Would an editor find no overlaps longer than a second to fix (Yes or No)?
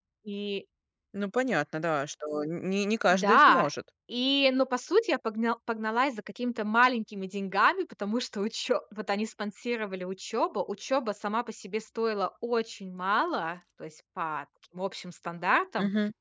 Yes